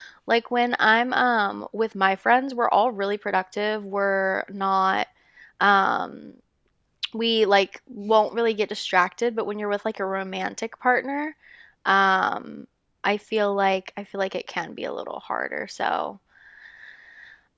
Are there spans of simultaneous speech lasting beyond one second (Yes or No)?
No